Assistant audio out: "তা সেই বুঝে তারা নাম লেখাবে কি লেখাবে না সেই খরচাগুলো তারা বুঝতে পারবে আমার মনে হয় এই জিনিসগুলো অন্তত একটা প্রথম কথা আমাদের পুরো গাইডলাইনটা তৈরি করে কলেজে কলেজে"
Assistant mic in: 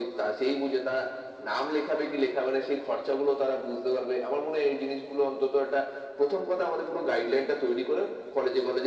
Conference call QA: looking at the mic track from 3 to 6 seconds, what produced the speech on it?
echo only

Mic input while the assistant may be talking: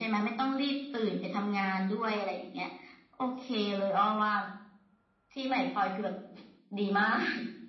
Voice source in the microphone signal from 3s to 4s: echo only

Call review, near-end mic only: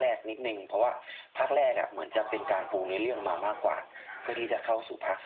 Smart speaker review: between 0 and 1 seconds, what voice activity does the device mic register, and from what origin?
echo only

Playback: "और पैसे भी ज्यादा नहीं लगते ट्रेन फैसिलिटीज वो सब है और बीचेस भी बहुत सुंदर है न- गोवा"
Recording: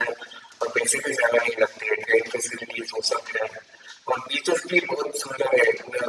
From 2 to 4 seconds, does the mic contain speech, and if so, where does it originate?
echo only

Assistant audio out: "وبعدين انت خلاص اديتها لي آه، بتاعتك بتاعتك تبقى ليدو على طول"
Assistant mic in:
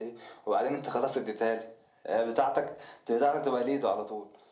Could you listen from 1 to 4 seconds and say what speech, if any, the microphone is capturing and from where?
echo only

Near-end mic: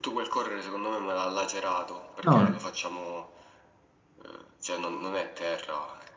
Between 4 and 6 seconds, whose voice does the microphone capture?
echo only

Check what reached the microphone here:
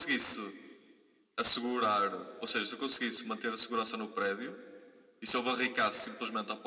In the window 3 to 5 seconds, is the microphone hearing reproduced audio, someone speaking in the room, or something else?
echo only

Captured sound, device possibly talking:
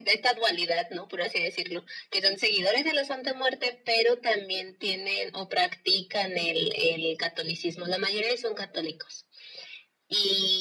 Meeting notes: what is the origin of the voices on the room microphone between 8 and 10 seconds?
echo only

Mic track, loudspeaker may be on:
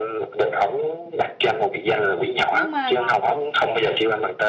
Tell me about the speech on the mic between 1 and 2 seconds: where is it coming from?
echo only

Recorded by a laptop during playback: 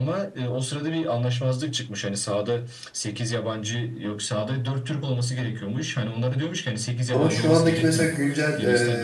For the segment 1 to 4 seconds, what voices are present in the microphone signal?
echo only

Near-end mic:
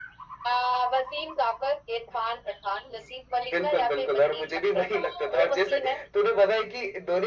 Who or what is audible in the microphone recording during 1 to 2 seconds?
echo only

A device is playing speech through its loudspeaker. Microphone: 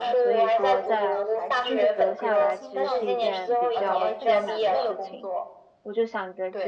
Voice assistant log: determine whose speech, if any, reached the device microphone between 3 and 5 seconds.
both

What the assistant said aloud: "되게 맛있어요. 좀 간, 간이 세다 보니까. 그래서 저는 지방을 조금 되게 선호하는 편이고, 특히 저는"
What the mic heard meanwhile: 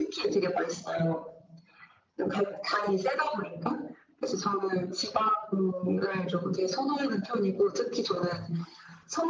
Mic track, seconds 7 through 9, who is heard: echo only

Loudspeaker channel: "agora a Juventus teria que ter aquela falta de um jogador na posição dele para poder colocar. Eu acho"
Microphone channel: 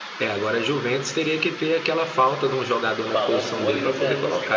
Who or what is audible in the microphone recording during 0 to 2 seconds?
echo only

